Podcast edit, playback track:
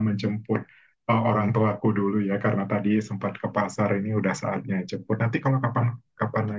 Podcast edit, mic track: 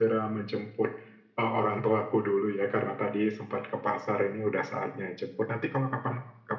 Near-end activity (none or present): none